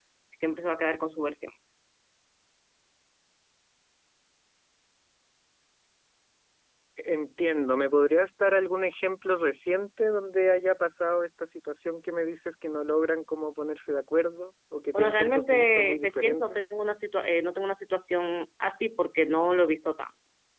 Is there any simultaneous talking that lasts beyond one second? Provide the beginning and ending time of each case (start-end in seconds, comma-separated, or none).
14.9-16.6